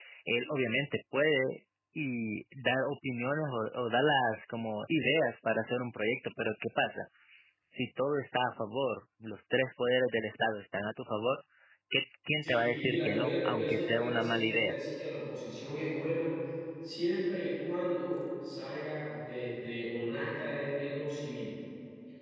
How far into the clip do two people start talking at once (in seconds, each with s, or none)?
12.4 s